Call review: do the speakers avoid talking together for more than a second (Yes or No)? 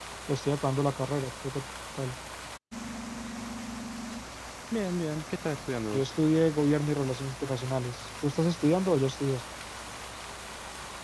Yes